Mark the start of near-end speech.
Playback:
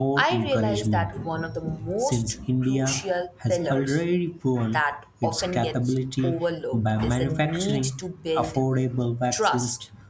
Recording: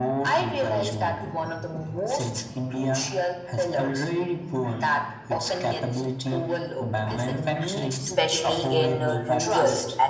8.0 s

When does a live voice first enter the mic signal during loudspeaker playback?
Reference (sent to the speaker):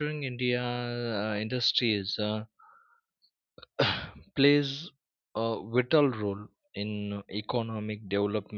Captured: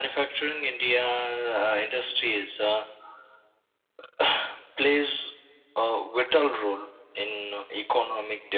none

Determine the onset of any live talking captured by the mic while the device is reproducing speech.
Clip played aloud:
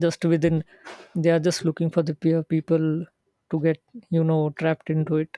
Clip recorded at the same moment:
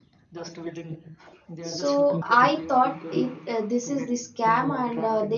1.6 s

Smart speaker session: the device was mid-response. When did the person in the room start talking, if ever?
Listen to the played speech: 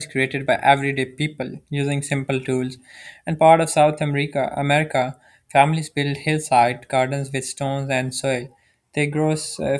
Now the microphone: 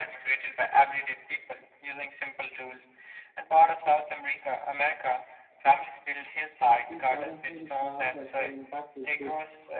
6.8 s

